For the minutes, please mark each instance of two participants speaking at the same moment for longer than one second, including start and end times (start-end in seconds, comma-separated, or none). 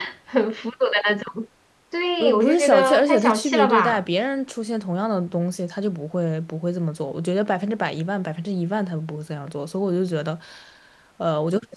2.2-4.0